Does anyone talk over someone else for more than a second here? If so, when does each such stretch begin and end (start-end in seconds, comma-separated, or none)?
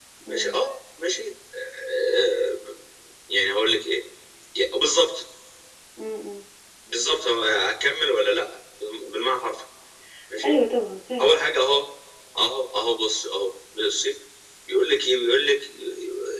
none